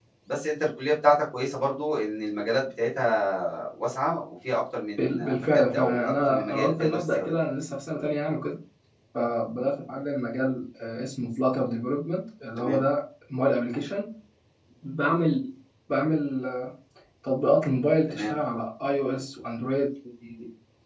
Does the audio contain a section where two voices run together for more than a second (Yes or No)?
Yes